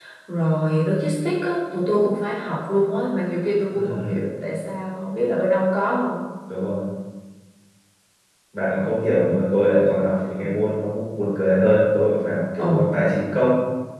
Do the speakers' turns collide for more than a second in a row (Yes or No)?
No